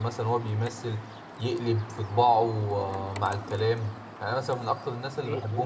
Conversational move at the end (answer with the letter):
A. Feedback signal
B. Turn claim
A